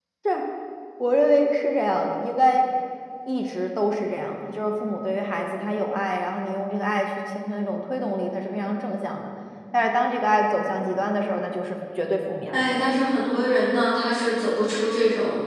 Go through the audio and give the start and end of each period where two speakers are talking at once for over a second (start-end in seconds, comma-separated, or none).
none